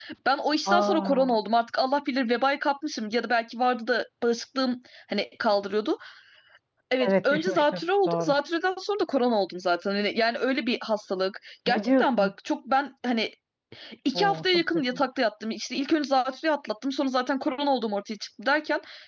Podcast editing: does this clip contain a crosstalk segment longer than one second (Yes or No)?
Yes